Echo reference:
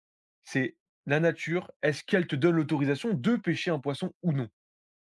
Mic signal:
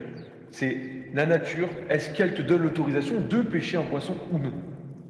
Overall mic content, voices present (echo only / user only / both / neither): echo only